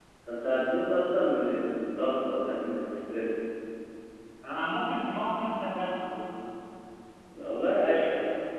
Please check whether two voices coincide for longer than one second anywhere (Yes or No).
No